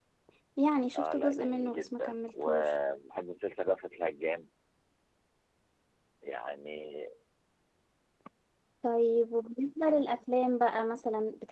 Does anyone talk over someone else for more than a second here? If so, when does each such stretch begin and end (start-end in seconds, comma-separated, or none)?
1.0-2.8